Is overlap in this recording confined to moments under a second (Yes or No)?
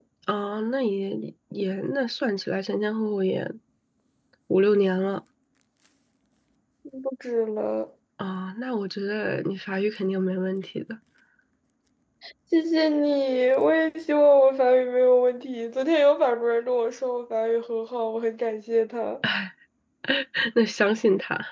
Yes